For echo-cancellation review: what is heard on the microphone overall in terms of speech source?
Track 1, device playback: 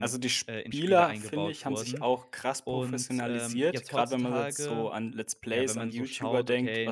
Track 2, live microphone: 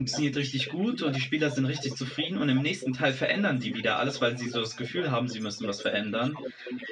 both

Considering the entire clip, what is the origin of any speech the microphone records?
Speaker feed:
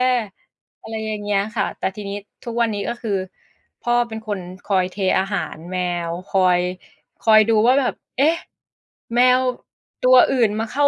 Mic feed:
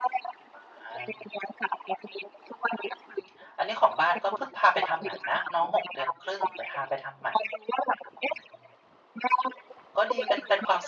both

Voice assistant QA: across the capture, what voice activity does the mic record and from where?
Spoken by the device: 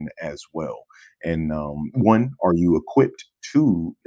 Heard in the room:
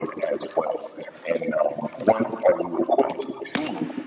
echo only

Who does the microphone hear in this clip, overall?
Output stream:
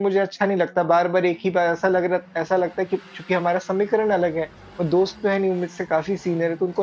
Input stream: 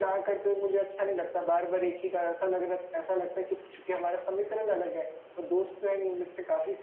echo only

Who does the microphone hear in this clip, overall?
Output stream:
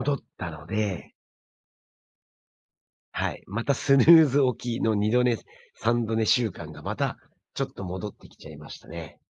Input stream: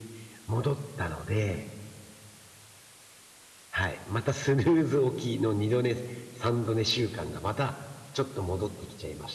echo only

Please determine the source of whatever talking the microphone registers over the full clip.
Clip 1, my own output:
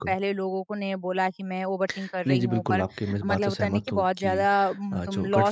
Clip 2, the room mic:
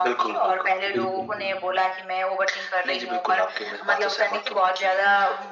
both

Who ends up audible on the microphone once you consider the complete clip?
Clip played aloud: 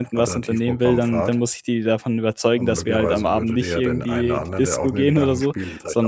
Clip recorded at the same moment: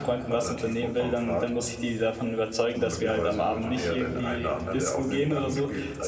echo only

